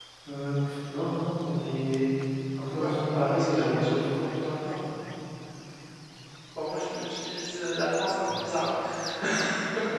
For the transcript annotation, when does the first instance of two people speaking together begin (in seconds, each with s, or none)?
2.8 s